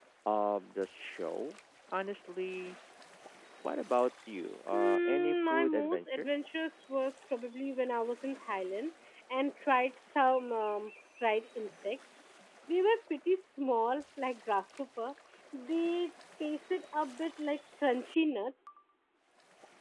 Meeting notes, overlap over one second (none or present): present